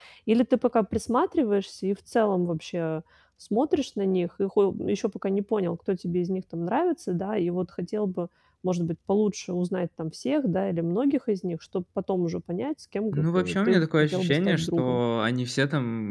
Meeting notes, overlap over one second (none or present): present